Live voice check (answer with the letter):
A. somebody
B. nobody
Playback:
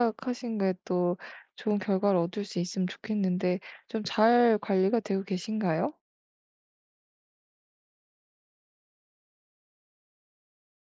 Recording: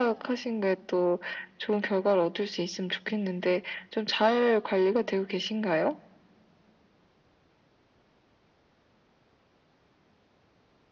B